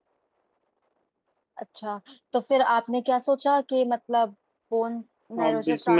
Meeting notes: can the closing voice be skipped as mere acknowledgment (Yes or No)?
No